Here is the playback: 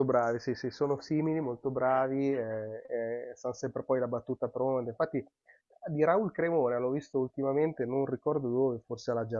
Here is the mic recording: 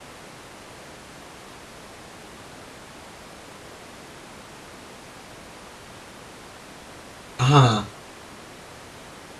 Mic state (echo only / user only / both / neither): user only